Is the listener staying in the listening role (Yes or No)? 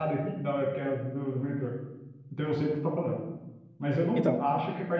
Yes